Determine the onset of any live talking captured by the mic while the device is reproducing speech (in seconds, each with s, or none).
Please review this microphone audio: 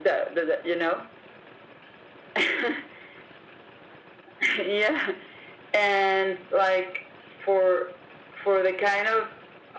none